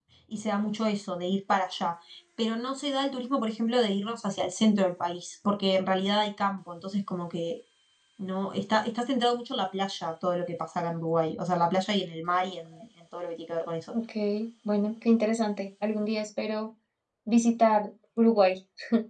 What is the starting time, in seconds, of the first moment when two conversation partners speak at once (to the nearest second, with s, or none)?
none